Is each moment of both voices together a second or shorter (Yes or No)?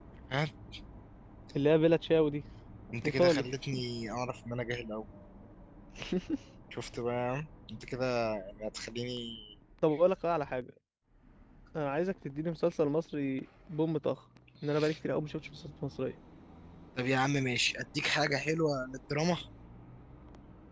Yes